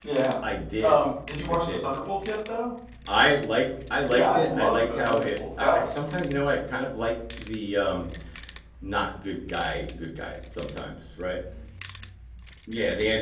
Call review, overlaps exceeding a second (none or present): present